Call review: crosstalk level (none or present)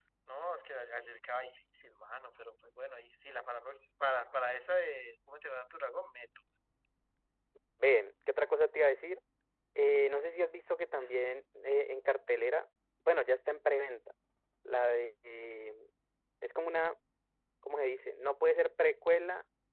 none